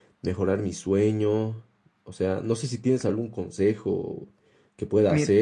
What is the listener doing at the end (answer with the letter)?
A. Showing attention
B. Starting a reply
A